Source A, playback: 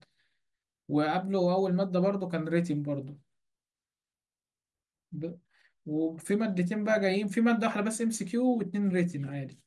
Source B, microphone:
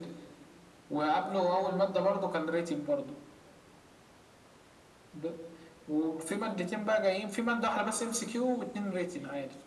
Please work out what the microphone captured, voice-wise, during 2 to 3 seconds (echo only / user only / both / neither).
echo only